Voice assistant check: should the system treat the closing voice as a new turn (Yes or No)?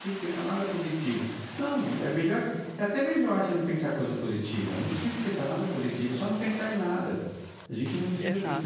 No